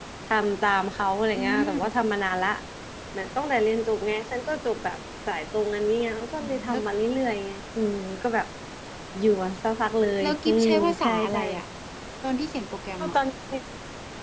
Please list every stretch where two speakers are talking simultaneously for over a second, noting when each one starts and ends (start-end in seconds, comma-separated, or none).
10.2-11.4